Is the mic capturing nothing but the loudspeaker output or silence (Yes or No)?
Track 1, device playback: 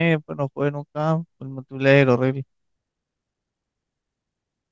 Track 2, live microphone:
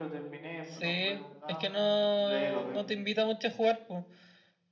No